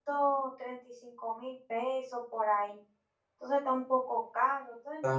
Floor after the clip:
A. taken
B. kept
A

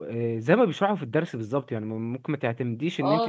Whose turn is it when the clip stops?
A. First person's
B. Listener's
B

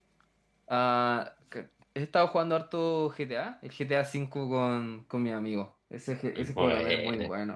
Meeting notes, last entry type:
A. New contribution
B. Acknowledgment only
B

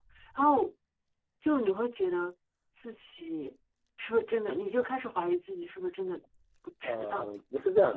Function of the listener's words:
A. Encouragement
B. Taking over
B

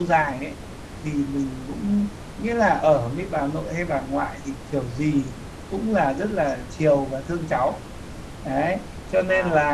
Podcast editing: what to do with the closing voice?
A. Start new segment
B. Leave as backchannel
B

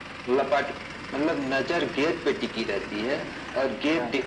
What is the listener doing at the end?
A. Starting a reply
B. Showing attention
B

